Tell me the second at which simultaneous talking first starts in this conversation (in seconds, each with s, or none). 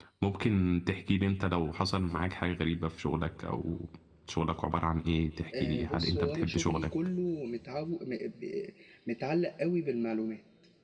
5.5 s